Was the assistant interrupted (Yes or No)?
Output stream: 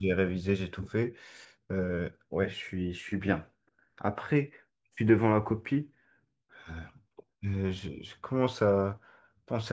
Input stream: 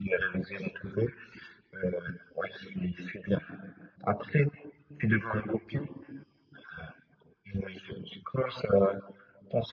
No